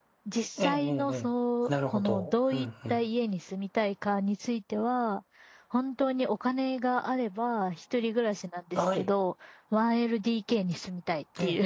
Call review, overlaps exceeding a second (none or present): present